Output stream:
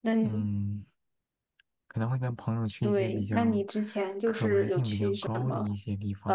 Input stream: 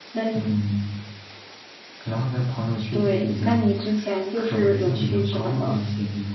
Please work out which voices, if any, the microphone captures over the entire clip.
echo only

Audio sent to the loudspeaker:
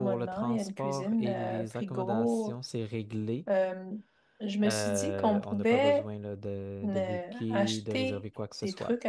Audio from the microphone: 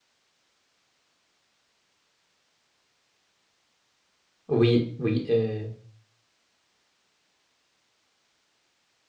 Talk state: user only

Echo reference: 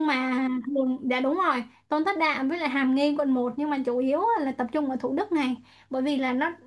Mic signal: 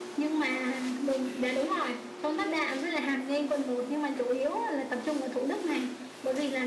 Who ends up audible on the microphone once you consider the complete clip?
echo only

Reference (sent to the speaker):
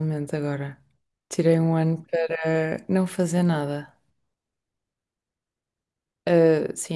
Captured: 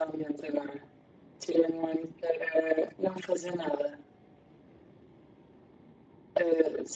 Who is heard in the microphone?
echo only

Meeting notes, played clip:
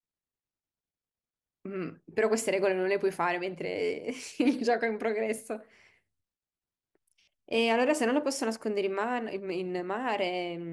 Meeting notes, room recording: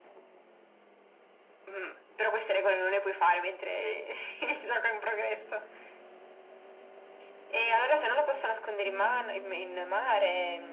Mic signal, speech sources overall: echo only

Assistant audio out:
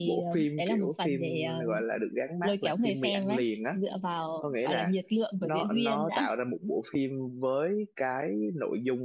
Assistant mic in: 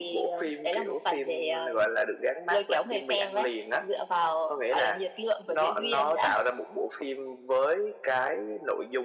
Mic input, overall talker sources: echo only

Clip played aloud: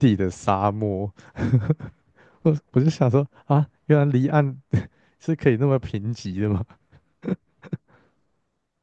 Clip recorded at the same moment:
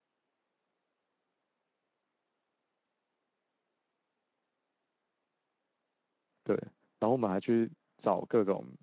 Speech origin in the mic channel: user only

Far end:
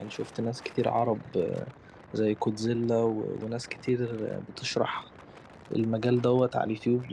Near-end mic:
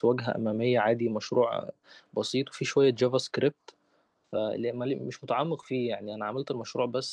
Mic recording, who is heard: user only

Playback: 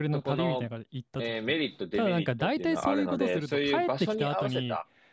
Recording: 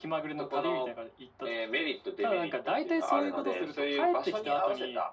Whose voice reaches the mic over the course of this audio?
echo only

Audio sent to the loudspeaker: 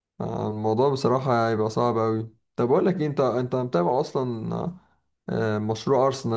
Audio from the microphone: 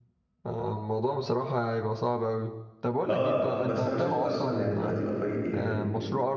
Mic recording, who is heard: both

